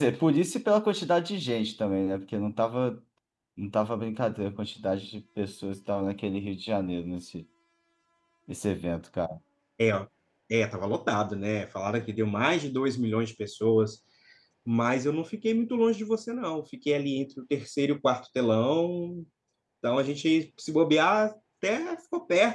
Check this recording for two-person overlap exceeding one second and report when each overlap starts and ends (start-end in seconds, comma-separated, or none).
none